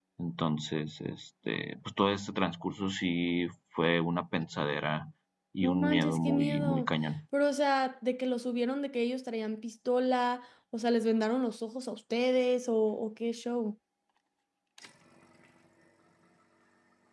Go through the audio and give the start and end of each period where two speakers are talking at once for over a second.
5.6-6.9

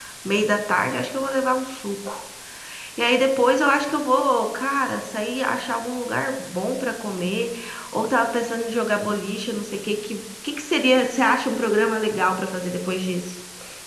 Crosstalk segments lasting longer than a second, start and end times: none

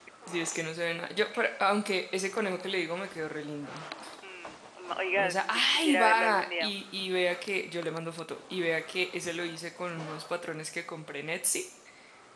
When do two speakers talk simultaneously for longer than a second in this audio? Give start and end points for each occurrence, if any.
5.2-6.7

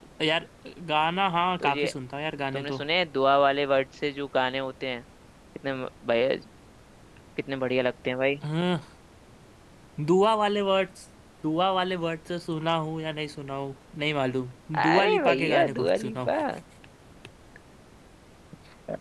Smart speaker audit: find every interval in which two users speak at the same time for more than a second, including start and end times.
14.8-16.3

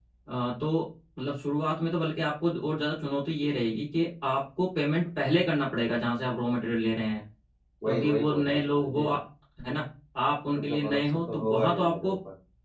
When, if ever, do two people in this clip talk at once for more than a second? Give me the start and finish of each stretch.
7.9-9.1, 10.6-12.1

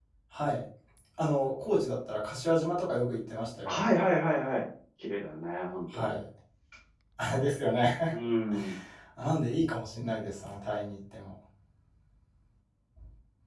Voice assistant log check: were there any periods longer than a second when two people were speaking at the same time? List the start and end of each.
none

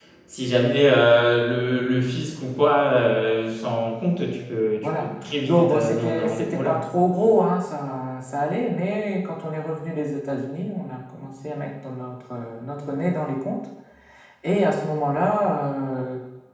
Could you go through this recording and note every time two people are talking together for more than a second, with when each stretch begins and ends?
5.5-6.8

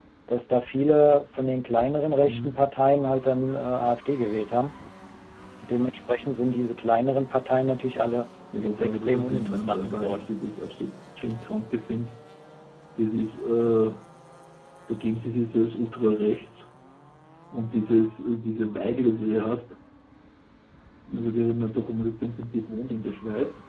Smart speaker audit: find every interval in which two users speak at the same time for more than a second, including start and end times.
8.6-10.3

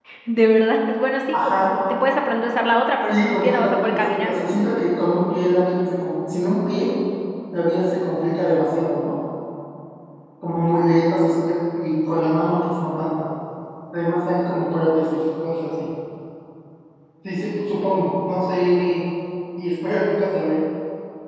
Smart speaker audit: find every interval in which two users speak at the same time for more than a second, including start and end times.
3.1-4.4

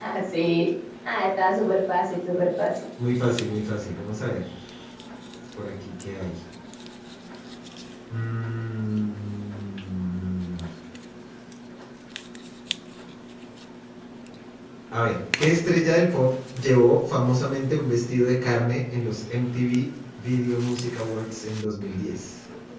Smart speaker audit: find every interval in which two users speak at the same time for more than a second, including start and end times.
none

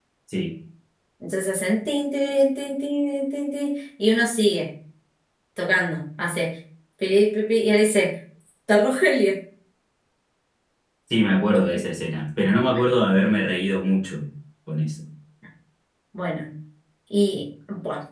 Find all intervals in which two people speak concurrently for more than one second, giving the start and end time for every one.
none

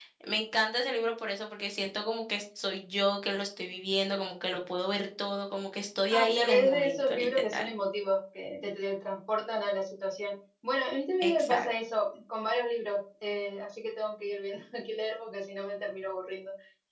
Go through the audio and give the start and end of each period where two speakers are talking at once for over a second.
6.1-7.7

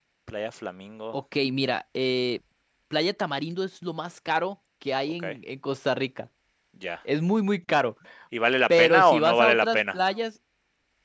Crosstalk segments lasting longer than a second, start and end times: 8.7-10.0

